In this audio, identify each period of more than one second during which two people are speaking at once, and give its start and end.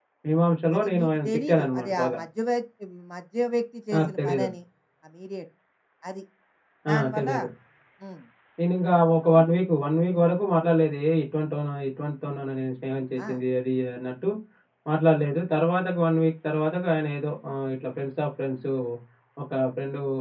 0.8-2.2

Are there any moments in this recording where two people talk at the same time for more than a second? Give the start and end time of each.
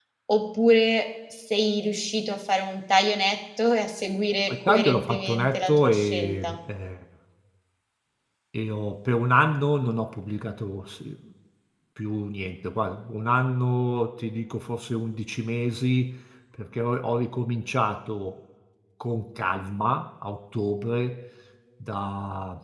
4.5-6.6

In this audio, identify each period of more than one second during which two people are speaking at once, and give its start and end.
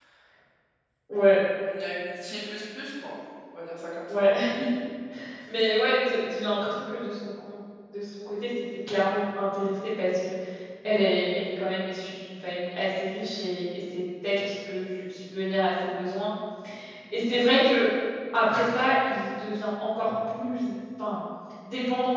none

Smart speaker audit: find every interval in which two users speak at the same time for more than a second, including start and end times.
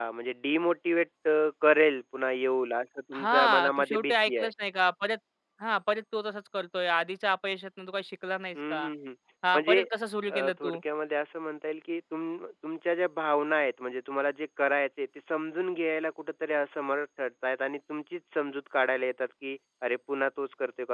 3.1-4.5

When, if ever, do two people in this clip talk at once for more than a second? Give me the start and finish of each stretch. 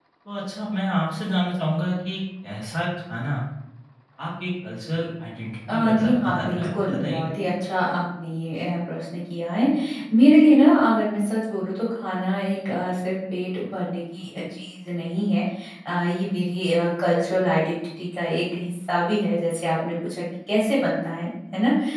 5.7-7.2

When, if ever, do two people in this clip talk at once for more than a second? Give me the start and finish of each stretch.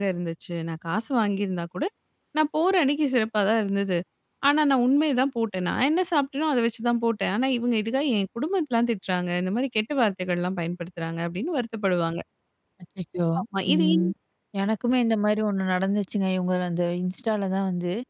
none

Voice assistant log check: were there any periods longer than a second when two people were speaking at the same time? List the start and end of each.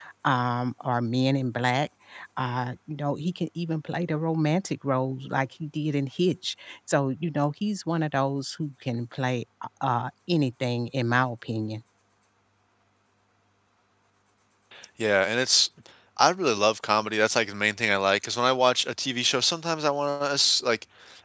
none

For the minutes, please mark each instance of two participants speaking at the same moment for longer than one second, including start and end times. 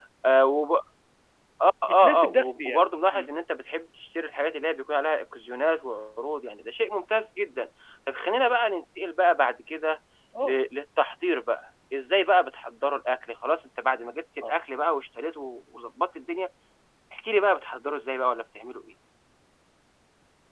2.0-3.3

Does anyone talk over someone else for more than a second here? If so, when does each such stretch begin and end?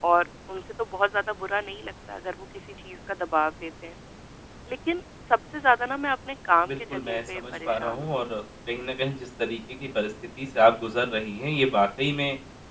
6.7-8.2

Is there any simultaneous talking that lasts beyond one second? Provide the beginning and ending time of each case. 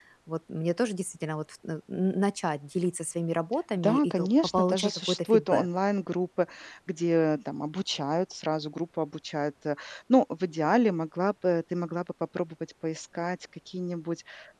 3.8-5.7

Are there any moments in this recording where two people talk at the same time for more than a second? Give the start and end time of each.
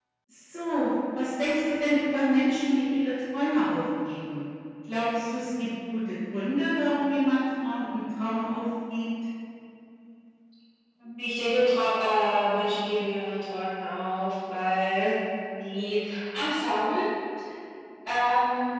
none

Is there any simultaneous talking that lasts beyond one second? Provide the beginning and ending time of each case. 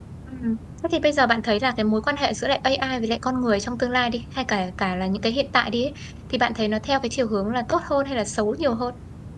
none

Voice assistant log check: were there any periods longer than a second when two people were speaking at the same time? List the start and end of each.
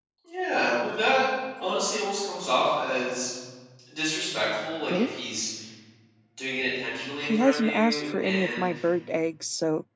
7.2-8.7

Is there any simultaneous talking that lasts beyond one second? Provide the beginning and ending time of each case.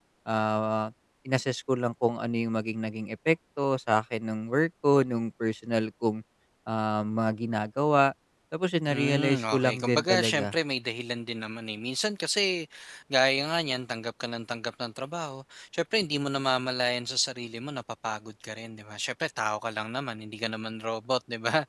8.9-10.5

